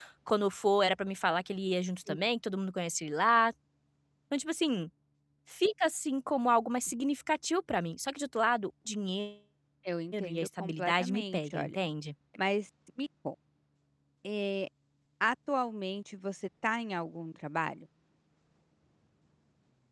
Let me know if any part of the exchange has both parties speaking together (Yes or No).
Yes